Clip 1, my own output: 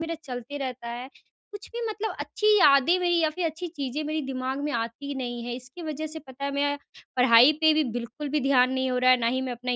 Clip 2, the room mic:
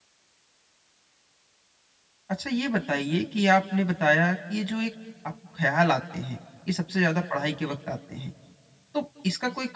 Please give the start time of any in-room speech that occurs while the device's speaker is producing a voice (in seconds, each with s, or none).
2.3 s